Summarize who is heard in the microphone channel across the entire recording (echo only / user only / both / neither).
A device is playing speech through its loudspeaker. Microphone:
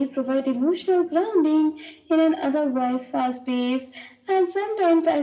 echo only